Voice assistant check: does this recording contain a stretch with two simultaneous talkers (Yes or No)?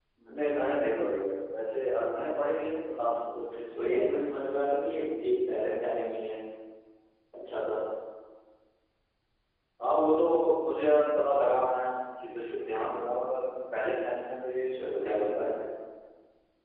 Yes